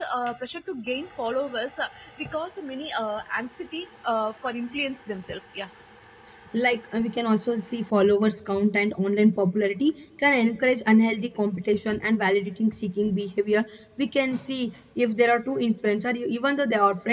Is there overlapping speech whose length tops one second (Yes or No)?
No